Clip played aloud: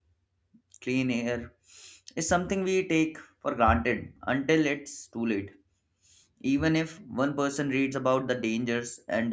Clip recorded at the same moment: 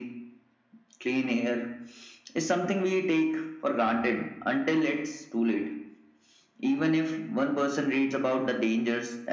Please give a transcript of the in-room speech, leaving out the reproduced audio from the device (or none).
none